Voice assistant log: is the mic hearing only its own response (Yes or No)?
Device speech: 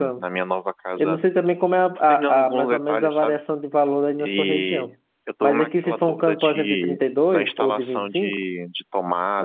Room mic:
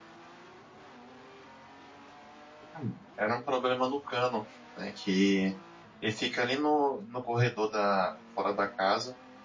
No